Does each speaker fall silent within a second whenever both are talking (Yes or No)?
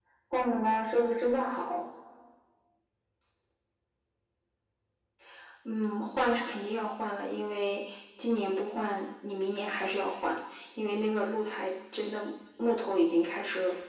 Yes